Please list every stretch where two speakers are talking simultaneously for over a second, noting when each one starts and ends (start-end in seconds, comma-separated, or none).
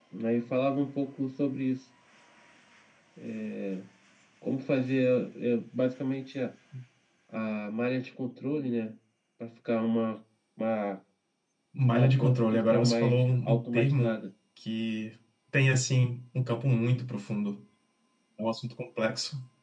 11.9-14.2